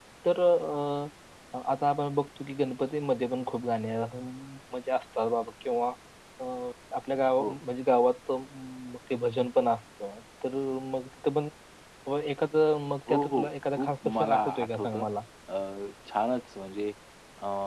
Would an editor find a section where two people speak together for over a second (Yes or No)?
Yes